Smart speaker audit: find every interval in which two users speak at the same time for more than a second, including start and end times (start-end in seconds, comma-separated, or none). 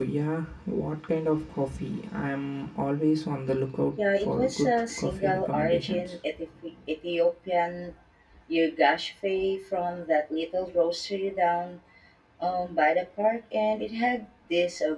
4.0-6.1